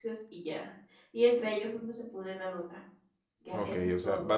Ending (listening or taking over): taking over